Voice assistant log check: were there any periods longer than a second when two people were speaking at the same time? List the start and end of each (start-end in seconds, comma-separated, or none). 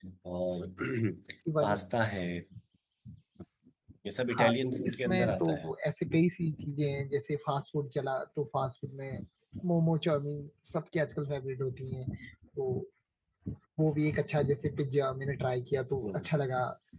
4.4-5.7